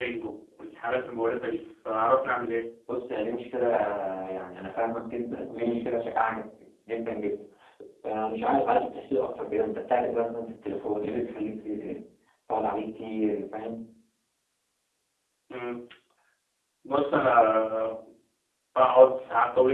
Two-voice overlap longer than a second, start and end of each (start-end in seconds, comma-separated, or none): none